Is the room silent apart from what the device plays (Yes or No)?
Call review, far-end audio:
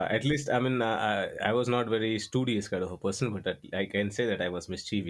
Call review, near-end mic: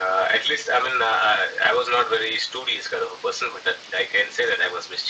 Yes